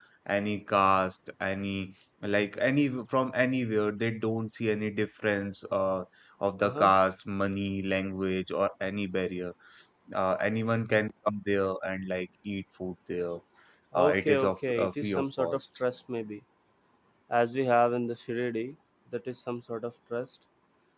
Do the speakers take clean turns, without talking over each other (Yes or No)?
No